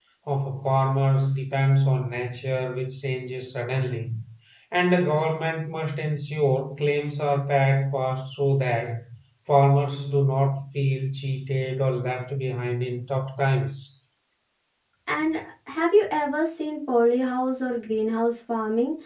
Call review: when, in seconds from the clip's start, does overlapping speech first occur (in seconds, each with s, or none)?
none